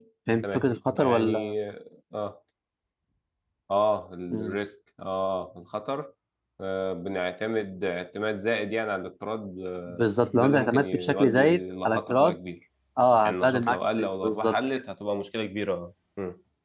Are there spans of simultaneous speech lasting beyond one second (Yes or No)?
Yes